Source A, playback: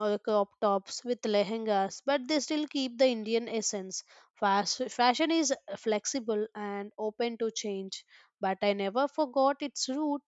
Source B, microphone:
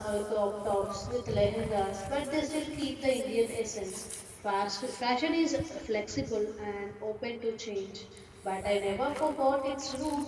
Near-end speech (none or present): none